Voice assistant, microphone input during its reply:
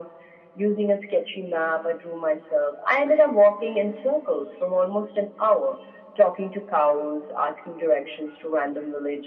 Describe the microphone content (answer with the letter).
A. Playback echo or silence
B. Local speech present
A